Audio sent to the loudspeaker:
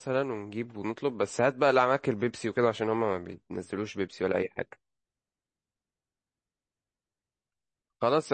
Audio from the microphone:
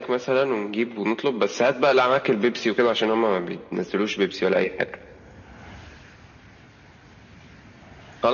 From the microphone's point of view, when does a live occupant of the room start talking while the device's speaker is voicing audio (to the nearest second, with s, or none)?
none